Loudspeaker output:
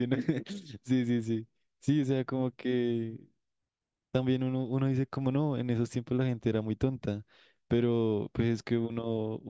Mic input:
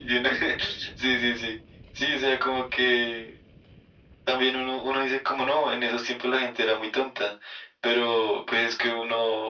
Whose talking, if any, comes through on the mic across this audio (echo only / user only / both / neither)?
echo only